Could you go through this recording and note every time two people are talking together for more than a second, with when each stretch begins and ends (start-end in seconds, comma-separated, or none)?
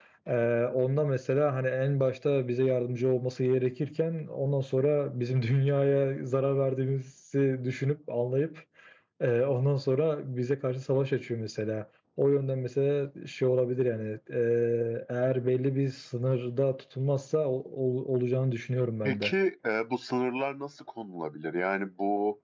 none